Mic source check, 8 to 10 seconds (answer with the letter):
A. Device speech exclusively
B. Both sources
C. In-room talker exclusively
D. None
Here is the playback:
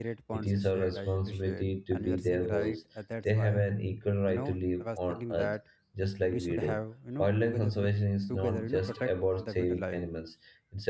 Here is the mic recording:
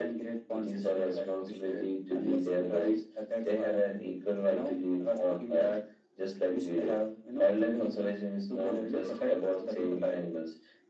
A